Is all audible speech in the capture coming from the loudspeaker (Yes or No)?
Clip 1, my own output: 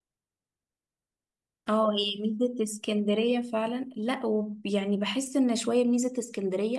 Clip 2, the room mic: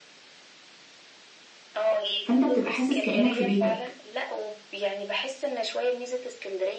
No